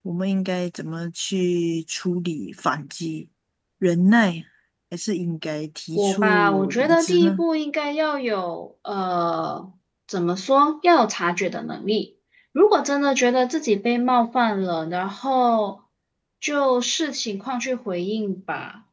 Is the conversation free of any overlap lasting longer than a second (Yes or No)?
No